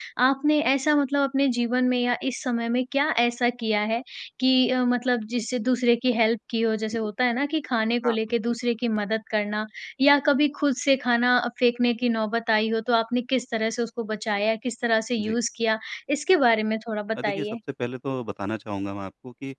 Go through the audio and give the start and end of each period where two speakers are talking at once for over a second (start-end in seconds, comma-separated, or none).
none